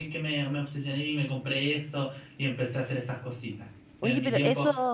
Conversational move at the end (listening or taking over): taking over